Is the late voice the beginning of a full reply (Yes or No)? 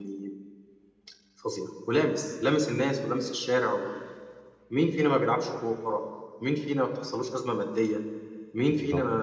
No